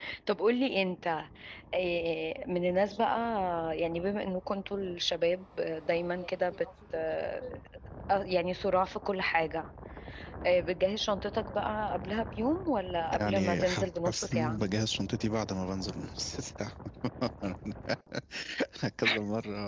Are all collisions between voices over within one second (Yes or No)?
No